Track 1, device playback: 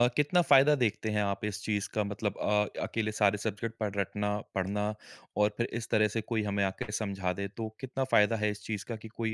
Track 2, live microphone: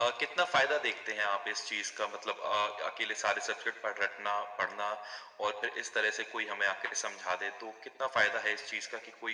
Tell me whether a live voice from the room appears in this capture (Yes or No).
No